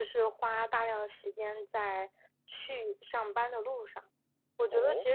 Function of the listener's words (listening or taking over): listening